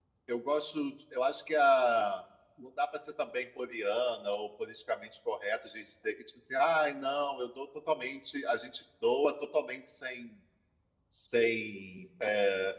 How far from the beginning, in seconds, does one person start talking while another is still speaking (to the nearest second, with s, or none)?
none